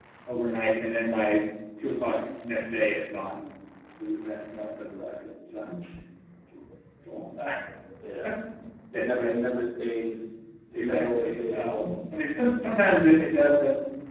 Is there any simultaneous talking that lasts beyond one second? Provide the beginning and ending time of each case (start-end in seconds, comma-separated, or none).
10.7-12.0